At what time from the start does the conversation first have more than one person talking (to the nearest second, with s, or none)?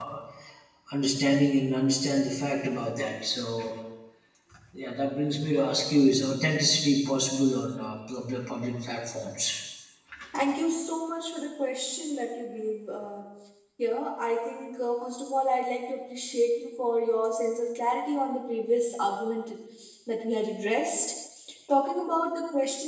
none